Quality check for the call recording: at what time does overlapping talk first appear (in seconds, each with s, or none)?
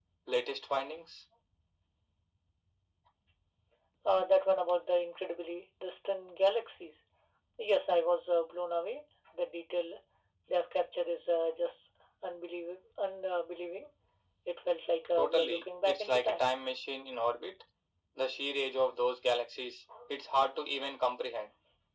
15.2 s